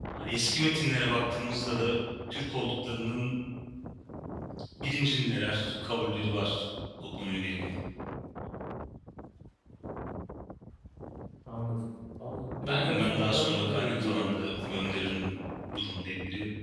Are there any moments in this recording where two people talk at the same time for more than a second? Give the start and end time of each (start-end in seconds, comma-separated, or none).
12.6-14.3